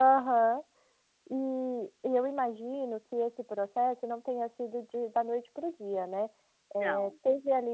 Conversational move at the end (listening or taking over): listening